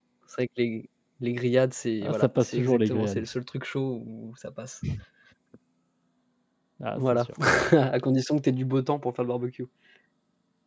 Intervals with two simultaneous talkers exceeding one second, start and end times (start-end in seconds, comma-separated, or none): 2.0-3.2